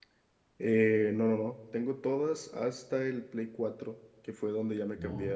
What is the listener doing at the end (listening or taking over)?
listening